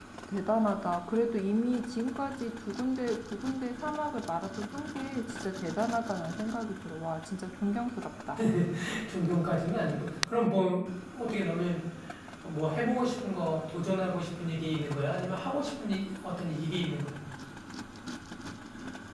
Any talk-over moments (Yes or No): No